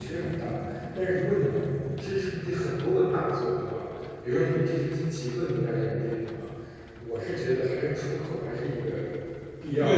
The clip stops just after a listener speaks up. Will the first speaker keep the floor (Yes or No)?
No